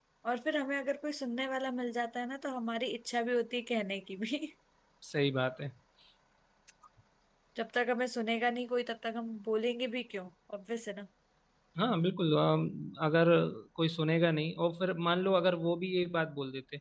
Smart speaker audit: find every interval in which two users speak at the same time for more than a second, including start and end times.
none

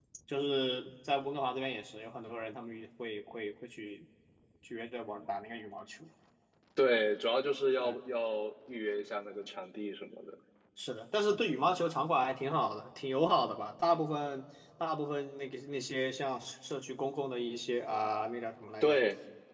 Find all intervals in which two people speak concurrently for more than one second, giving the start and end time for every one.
none

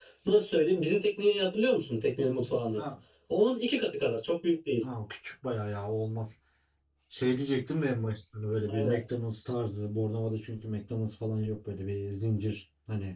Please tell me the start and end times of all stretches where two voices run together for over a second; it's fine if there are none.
none

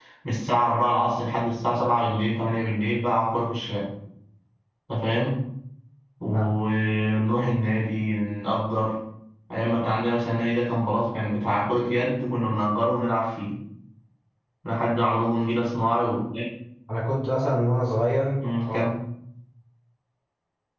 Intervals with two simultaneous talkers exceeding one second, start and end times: none

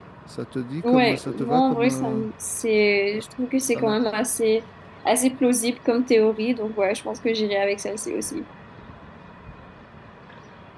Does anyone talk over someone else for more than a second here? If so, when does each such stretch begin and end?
0.8-2.2

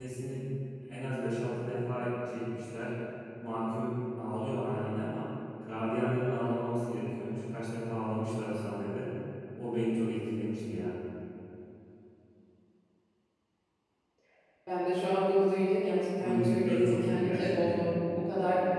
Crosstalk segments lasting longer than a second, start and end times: 16.2-17.8

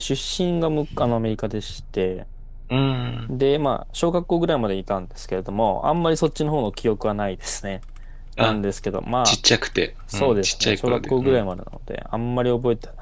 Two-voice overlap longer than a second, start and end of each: 10.1-11.4

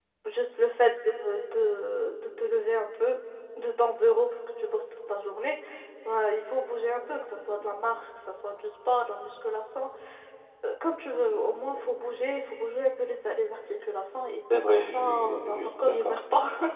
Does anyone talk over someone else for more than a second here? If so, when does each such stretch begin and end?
14.5-16.2

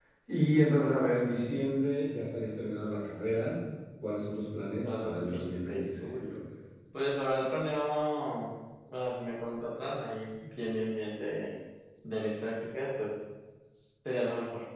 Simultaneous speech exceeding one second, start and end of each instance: 4.8-6.4

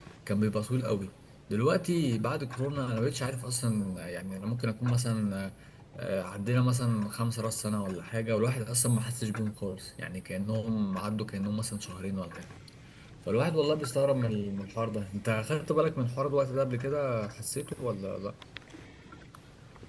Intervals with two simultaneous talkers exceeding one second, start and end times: none

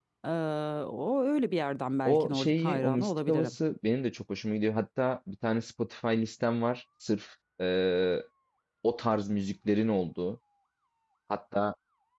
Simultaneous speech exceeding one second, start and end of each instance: 2.0-3.5

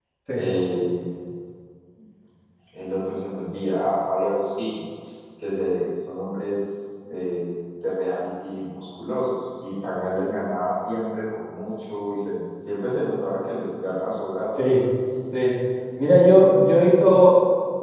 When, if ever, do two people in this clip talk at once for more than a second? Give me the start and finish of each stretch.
none

